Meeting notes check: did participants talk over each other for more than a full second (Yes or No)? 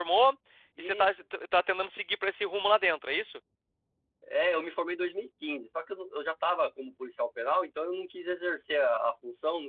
No